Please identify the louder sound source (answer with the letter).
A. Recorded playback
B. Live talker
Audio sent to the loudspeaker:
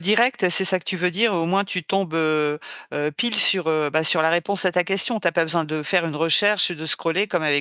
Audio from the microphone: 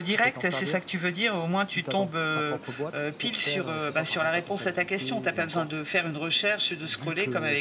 A